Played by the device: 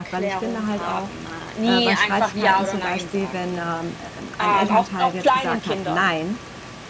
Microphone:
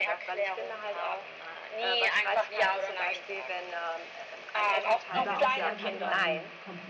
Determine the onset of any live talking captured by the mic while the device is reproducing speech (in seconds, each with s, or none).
5.1 s